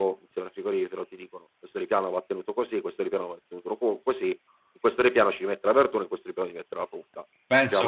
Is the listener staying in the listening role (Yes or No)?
No